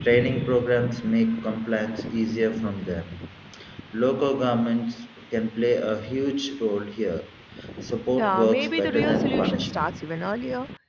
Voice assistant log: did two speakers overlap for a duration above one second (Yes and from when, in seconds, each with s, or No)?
Yes, from 8.2 s